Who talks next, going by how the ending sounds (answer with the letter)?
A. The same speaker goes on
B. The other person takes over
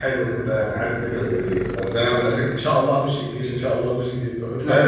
B